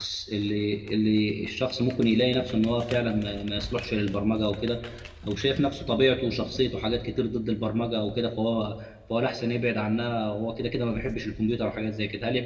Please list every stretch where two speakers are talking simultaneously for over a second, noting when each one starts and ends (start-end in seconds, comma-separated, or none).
none